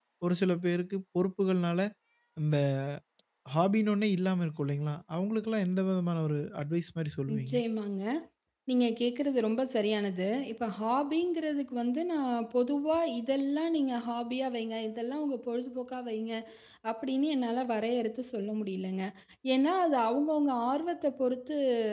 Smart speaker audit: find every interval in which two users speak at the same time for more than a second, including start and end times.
none

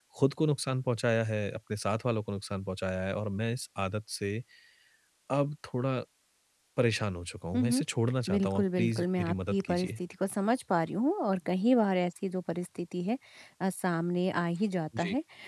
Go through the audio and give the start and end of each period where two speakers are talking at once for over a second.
8.3-9.9

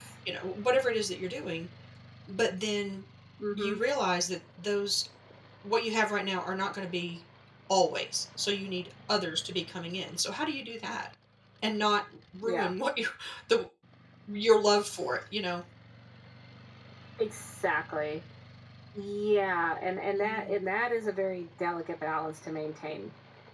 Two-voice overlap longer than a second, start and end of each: none

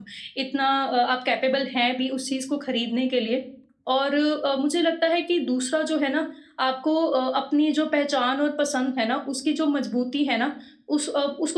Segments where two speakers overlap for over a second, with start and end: none

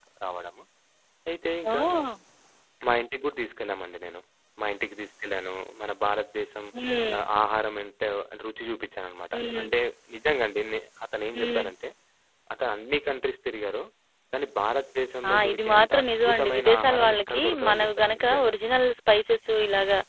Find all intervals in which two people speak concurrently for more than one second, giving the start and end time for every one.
15.3-18.5

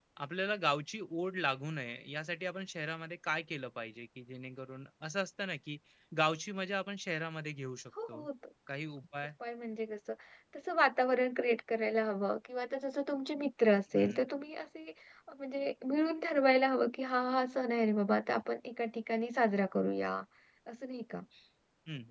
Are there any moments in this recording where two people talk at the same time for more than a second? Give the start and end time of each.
none

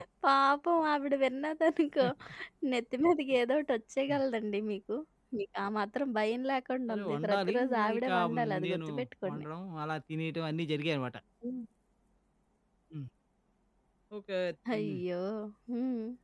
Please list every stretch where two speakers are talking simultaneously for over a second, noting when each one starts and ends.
6.9-8.9

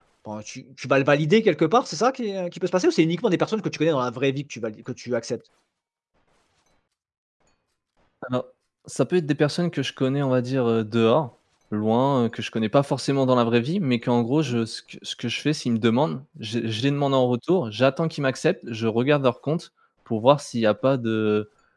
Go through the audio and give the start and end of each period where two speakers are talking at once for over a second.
none

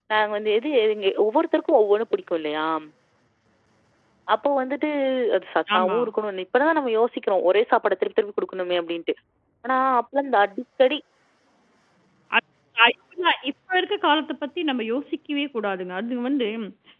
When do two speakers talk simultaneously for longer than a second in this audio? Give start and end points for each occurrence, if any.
none

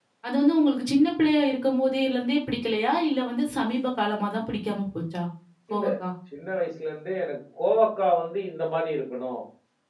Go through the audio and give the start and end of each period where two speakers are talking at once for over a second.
none

